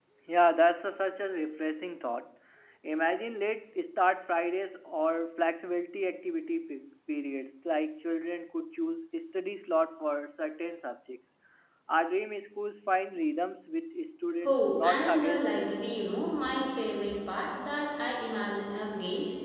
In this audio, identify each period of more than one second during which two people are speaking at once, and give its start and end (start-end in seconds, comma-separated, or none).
14.4-15.8